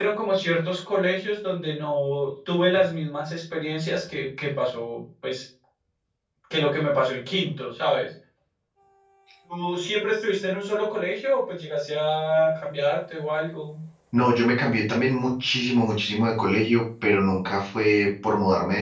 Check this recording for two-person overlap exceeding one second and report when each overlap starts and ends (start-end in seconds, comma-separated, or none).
none